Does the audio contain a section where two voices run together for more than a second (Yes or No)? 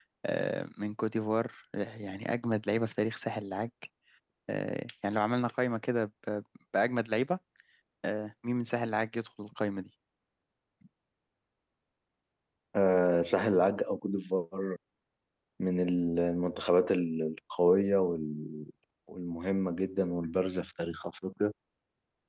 No